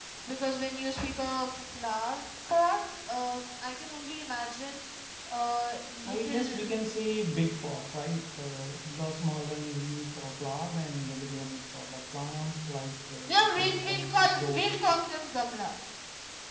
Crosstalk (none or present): present